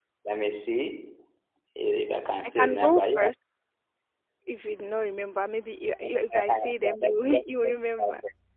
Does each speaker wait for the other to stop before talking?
No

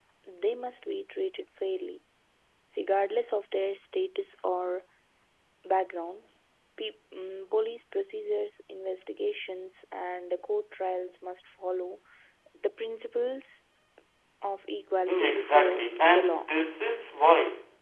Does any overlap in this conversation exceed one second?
Yes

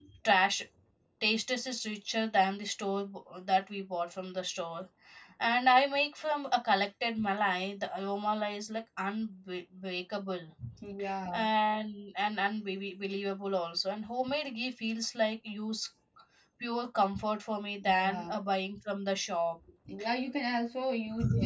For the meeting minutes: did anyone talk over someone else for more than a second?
No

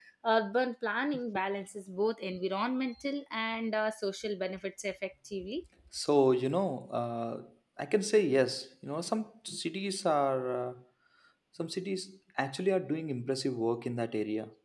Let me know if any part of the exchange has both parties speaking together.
No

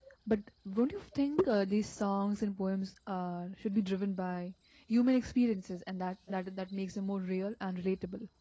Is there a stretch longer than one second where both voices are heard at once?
No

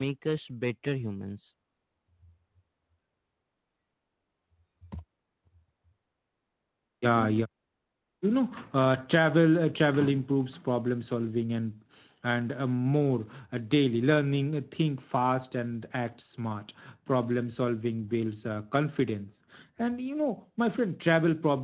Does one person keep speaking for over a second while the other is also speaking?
No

